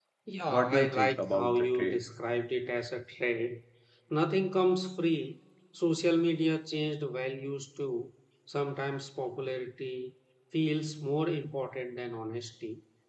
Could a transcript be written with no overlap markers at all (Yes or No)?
No